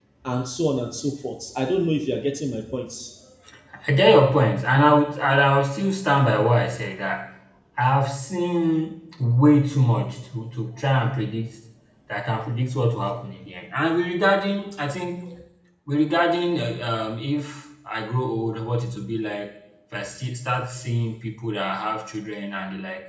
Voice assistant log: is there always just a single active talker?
Yes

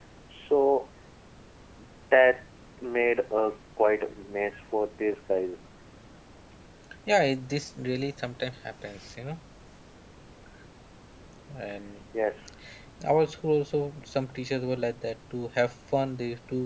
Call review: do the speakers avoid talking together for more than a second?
Yes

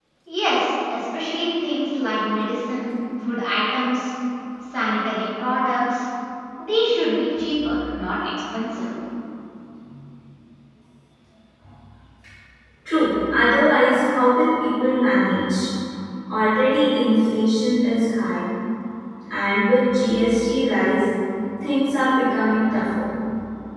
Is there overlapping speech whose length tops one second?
No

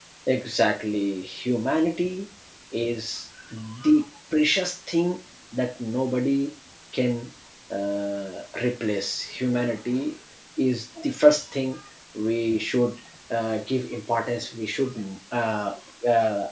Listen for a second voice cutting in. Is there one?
No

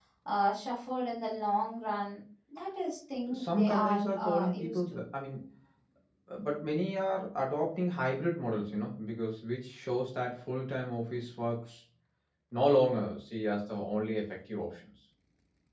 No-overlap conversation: No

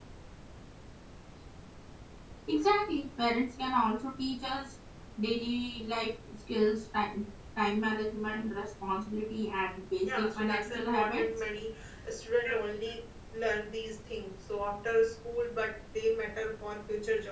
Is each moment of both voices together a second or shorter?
No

